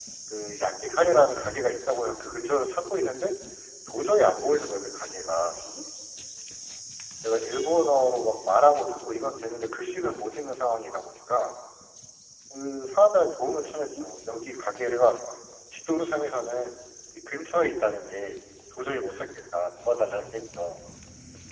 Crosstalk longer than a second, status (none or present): none